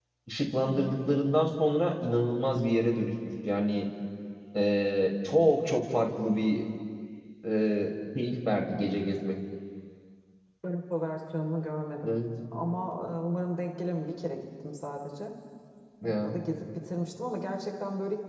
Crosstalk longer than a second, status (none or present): none